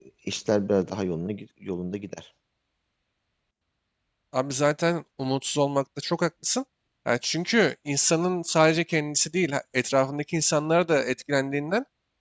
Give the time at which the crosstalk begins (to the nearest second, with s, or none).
none